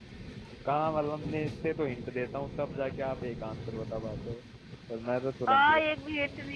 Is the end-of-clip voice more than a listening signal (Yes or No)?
Yes